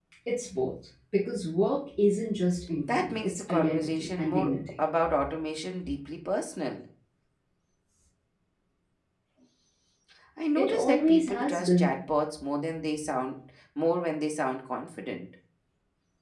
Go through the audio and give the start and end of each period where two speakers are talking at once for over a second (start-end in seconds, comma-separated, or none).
2.9-4.8, 10.6-11.9